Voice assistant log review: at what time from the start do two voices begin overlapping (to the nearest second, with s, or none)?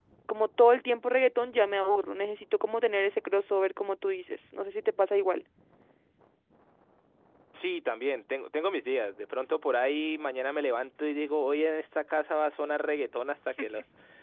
none